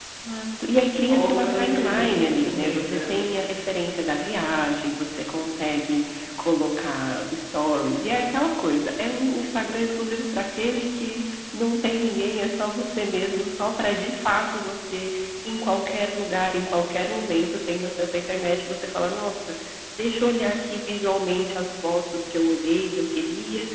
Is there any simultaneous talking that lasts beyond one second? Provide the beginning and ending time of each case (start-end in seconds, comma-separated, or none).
1.1-3.1